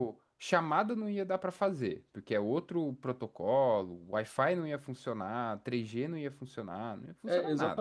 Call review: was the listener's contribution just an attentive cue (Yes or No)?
No